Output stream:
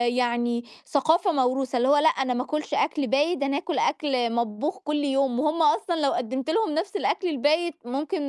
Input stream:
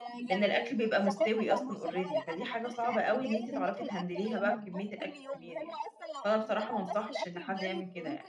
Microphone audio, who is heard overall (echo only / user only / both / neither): both